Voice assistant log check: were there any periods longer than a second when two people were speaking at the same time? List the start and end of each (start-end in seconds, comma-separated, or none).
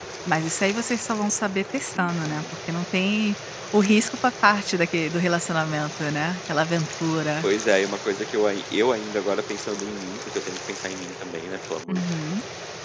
none